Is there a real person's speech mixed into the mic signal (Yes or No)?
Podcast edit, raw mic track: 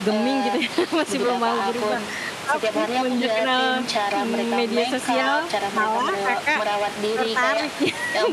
Yes